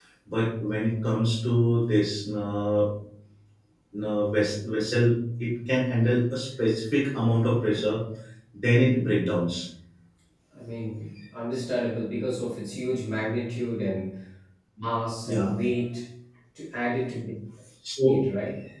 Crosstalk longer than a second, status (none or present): none